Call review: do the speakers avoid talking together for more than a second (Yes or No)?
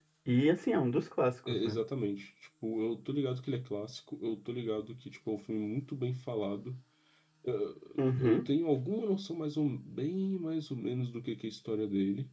Yes